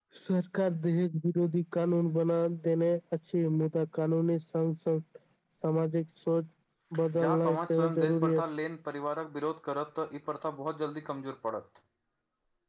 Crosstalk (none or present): present